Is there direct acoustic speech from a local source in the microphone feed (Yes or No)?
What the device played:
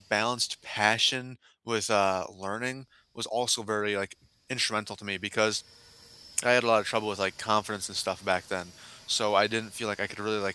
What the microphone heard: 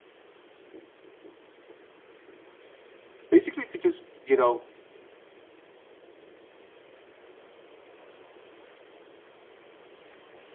Yes